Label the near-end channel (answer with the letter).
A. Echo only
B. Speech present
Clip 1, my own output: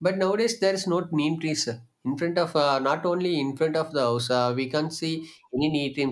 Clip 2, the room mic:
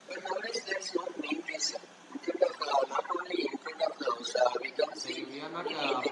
B